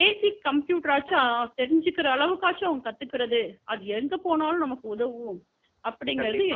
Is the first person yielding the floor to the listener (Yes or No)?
Yes